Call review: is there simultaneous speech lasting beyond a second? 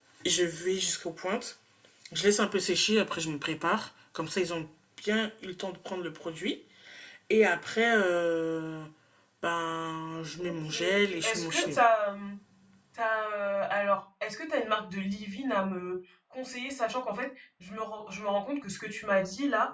Yes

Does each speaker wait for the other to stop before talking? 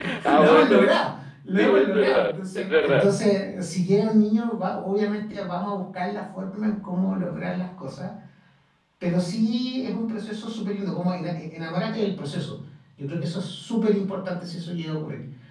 No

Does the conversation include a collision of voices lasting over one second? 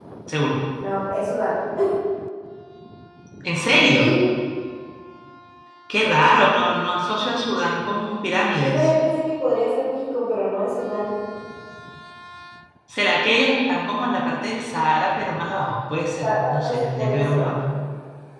Yes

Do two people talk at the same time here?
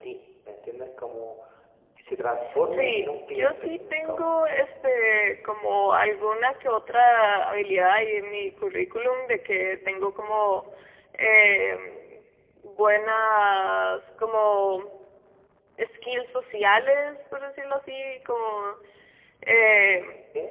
Yes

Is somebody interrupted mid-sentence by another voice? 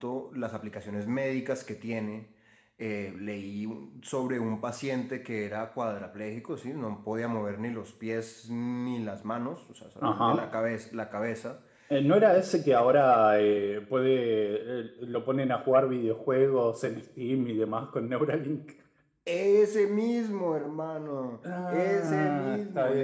Yes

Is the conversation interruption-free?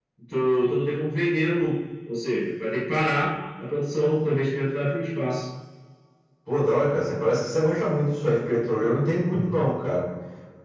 Yes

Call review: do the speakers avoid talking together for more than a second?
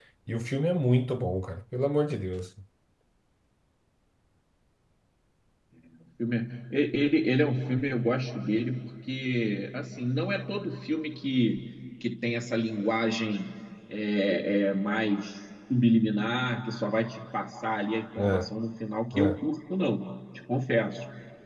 Yes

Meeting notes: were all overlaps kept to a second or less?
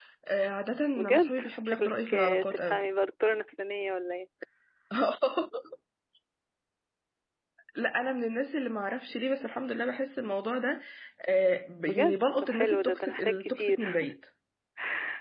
No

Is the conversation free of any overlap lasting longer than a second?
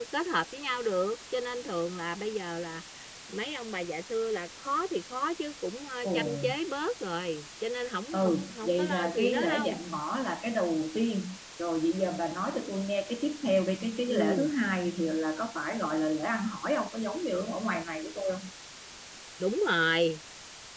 No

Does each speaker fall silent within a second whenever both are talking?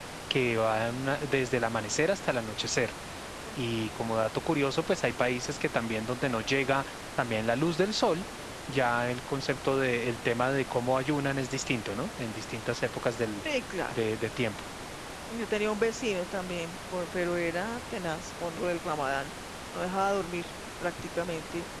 Yes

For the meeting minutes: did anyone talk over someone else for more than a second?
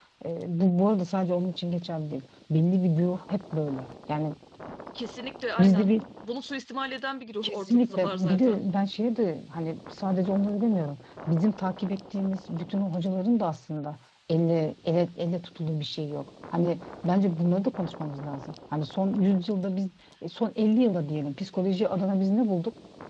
Yes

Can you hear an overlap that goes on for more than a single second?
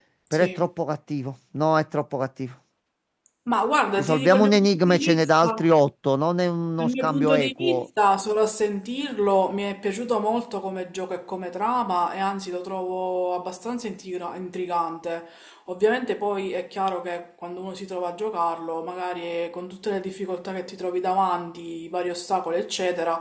Yes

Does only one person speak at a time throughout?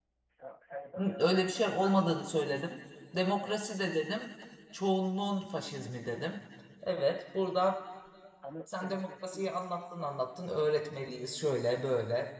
No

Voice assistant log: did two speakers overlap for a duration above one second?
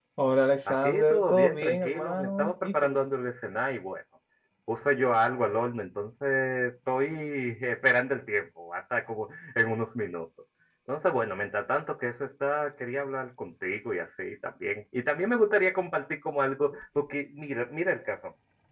Yes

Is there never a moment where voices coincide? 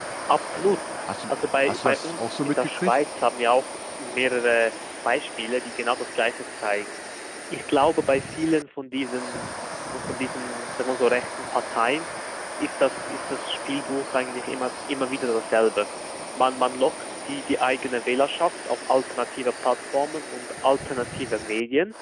No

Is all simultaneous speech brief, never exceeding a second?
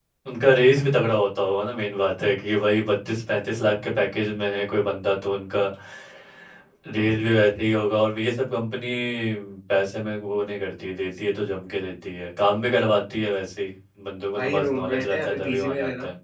No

